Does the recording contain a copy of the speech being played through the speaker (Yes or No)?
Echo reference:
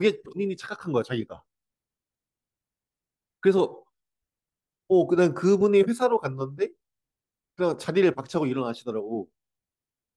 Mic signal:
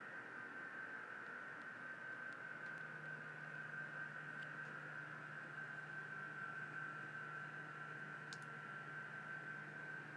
No